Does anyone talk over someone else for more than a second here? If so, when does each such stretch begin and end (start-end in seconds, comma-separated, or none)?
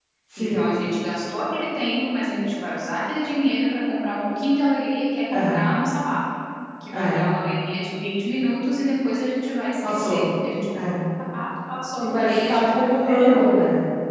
12.0-13.4